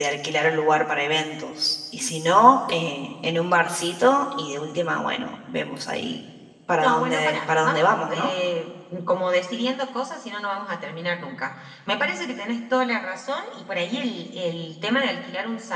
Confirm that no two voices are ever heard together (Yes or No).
No